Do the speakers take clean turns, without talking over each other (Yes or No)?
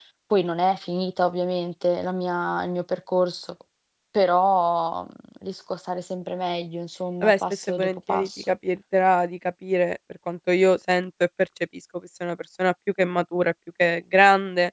No